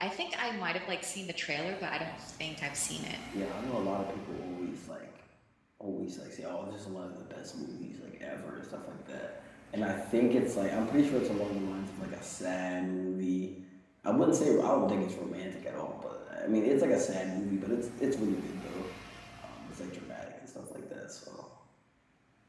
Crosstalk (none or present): none